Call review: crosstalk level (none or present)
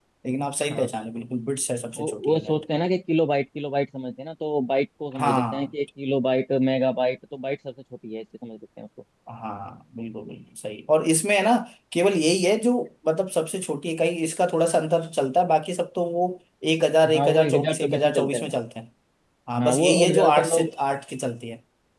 present